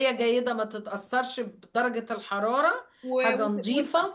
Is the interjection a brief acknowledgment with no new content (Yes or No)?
No